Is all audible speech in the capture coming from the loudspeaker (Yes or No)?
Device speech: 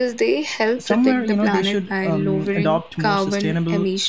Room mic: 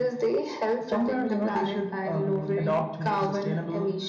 Yes